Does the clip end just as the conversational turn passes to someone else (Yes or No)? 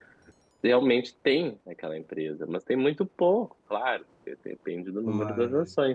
No